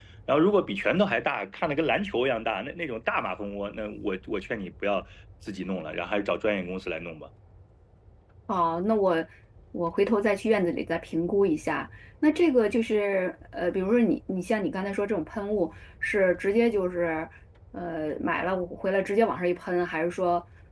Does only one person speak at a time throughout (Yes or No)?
Yes